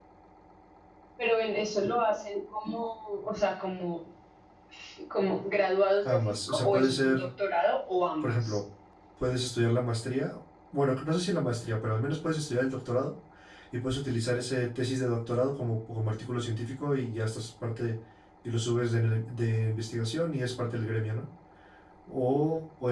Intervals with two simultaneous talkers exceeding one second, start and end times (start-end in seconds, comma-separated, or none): 6.0-7.2